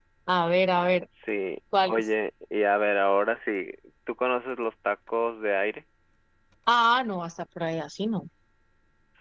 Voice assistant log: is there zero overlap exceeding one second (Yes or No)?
Yes